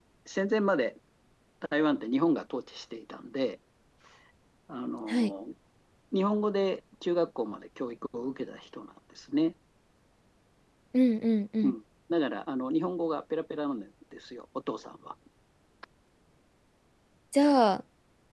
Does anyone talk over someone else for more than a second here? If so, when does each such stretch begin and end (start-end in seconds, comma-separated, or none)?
none